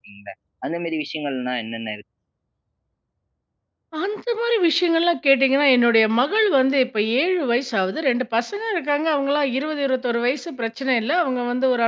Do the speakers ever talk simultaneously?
No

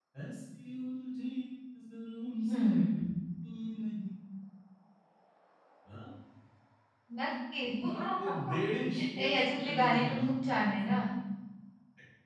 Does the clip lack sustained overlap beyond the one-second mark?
No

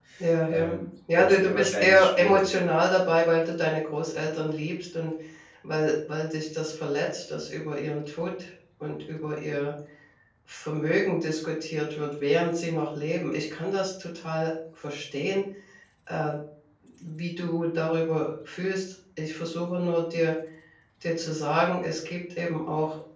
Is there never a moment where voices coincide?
No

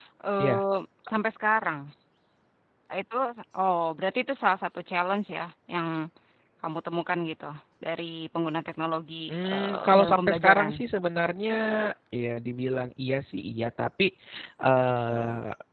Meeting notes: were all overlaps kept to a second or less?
No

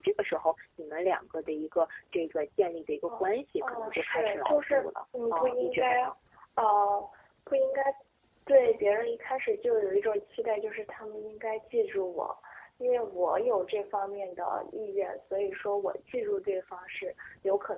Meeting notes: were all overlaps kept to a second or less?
No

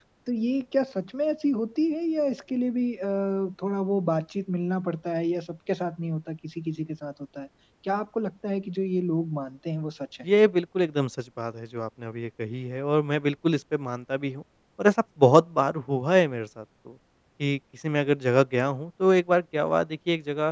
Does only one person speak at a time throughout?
Yes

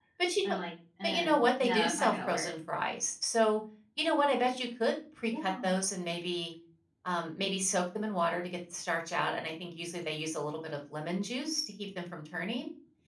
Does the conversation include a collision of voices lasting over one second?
Yes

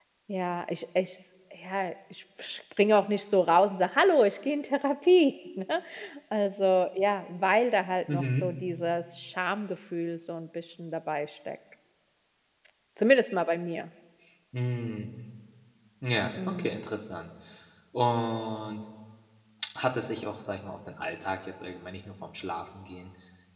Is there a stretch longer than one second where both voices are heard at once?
No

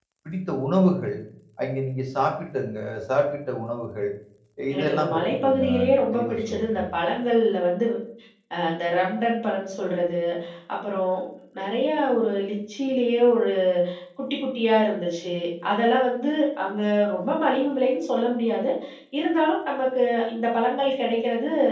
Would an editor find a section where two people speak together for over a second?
Yes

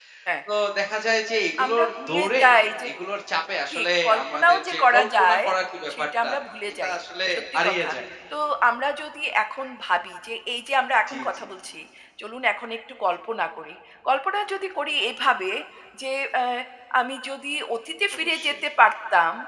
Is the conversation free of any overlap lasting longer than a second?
No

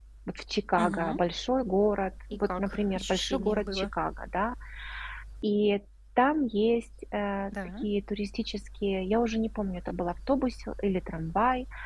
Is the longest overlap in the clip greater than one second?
Yes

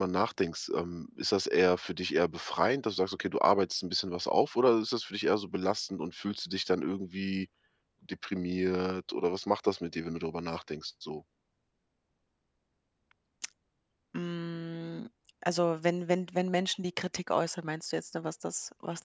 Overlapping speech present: No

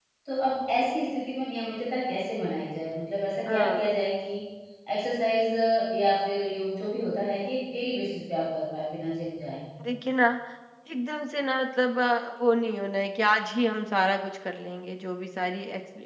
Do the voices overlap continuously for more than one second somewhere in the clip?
No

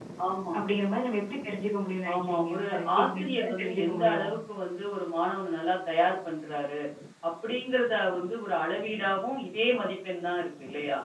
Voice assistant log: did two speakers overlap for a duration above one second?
Yes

